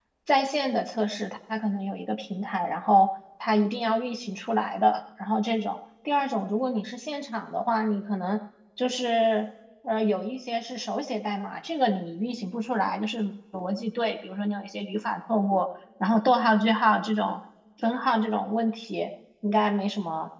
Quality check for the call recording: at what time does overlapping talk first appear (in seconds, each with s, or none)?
none